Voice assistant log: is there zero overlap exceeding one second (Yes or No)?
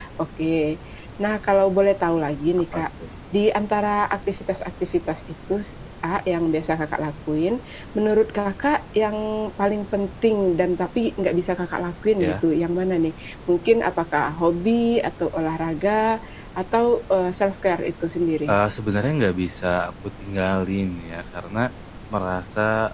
Yes